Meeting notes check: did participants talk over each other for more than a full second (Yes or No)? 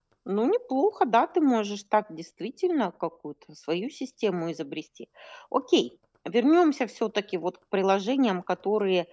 No